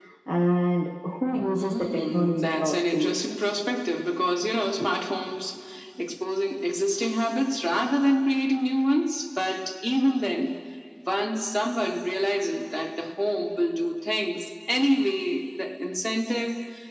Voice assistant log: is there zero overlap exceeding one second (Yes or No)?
No